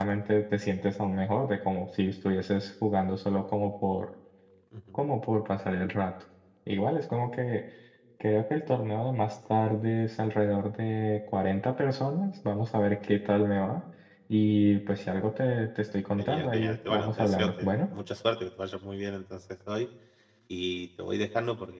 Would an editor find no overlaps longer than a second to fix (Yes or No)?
No